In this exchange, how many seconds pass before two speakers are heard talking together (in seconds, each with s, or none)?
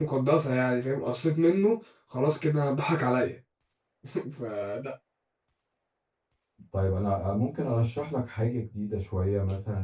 none